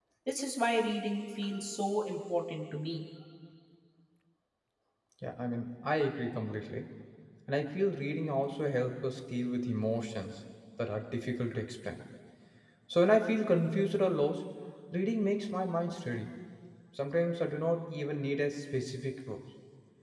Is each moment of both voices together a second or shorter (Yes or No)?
Yes